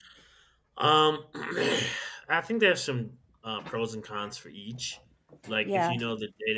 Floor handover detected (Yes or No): No